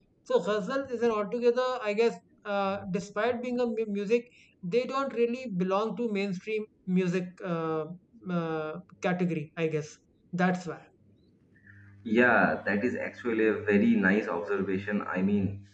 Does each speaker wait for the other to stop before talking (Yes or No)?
Yes